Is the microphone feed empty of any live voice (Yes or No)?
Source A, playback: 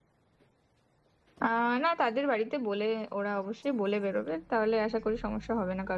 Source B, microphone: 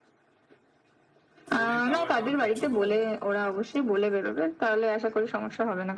No